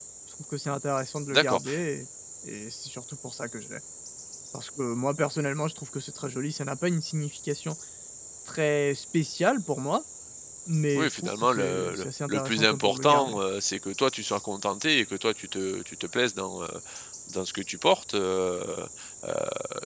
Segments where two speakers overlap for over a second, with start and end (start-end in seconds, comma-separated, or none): 11.0-13.4